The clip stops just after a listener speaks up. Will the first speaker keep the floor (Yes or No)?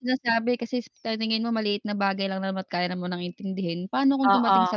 Yes